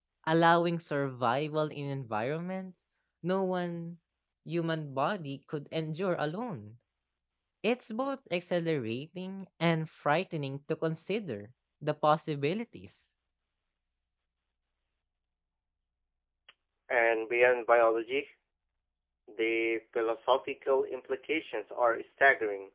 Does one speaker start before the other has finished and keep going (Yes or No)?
No